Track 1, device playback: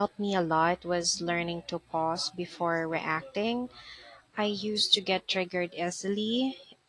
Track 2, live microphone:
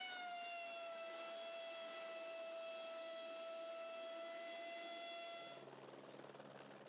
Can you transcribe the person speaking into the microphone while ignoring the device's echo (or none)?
none